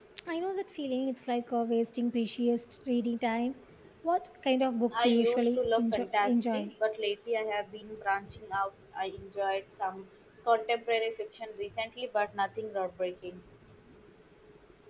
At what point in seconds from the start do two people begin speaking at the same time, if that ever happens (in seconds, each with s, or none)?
4.9 s